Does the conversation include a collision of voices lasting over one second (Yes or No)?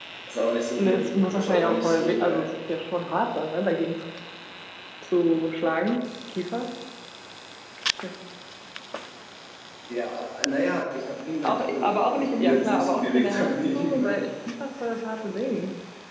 Yes